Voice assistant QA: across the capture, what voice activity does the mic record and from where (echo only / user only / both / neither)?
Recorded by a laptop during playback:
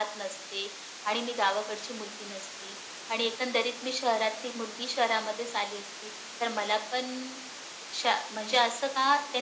echo only